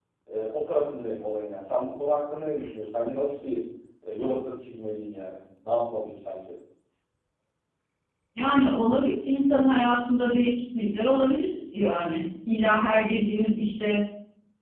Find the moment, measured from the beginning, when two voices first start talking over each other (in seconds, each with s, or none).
none